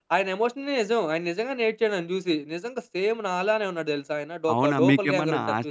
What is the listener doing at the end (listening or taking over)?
taking over